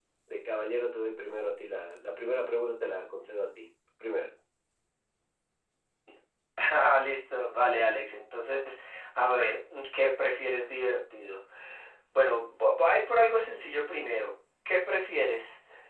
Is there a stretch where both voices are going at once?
No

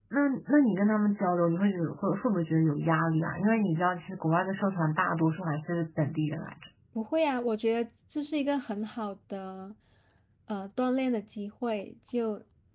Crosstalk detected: No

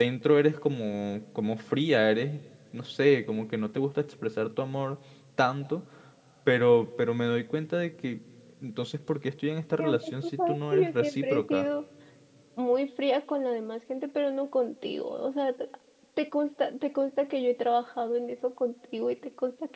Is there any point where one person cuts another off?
Yes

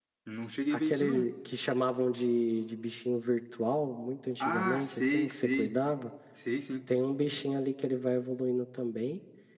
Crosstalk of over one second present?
Yes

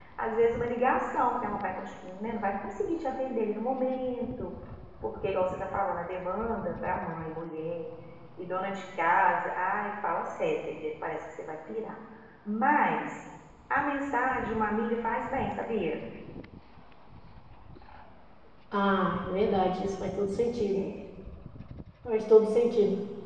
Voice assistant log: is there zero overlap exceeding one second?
Yes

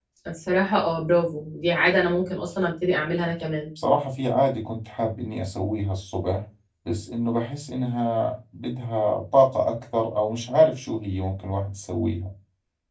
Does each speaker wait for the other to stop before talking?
Yes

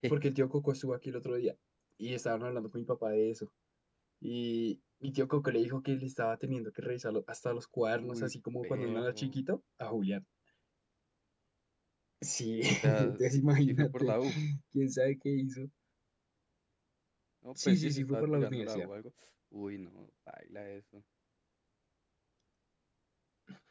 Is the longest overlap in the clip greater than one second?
Yes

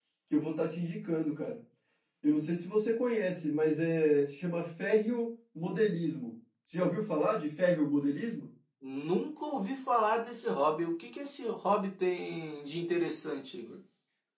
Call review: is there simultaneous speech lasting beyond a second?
No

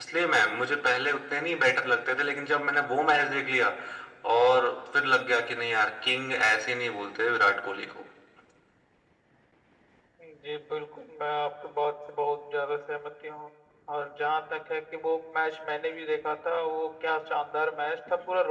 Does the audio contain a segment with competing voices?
No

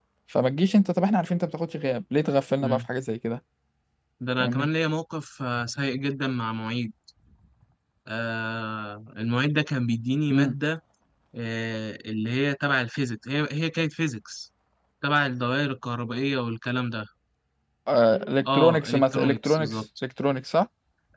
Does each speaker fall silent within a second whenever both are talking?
No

